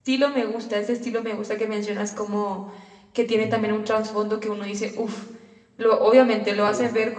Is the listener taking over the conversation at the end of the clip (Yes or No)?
No